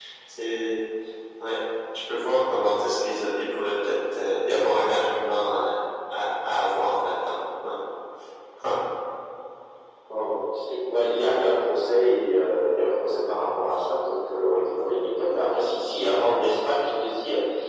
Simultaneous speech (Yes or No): No